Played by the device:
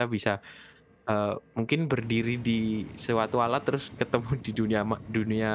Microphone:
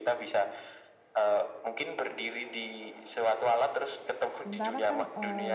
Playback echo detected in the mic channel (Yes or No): Yes